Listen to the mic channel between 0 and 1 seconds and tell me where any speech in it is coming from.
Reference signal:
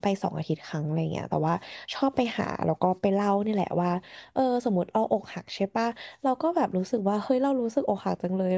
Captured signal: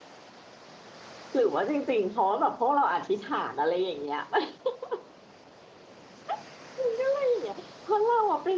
neither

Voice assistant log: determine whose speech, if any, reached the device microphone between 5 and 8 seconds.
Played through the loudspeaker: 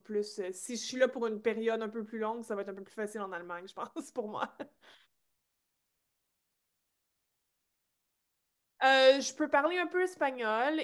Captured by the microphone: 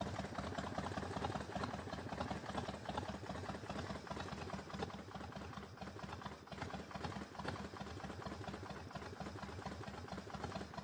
neither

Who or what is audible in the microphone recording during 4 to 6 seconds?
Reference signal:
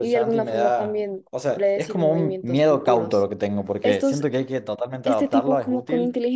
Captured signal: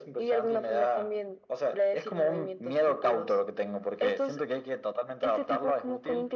echo only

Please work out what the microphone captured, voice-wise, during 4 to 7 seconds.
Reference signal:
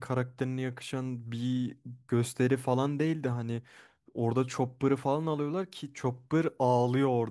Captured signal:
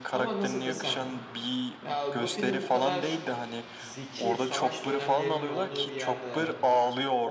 both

